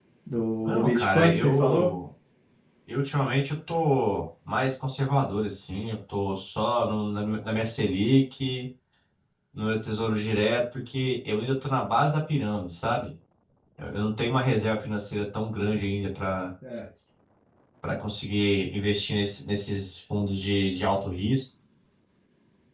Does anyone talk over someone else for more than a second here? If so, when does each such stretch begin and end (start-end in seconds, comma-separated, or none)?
0.6-1.9